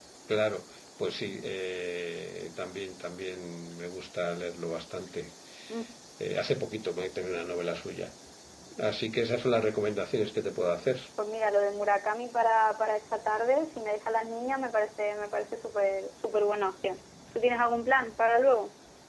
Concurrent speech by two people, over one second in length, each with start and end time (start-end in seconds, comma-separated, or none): none